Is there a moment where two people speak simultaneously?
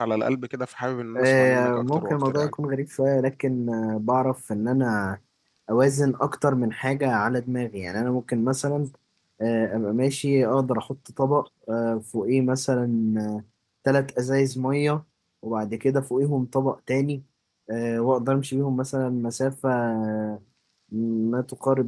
Yes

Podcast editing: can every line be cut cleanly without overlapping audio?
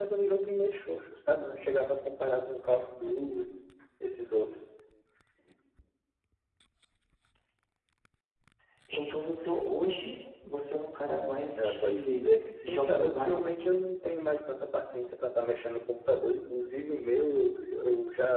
No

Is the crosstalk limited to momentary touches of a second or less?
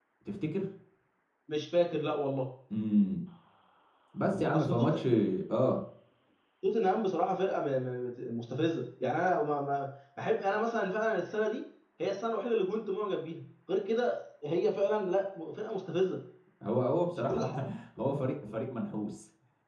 Yes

